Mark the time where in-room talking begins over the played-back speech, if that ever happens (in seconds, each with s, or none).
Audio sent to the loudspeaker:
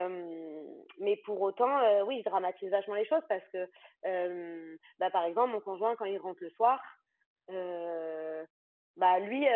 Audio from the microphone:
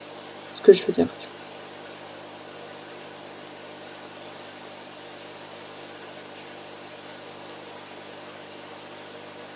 0.5 s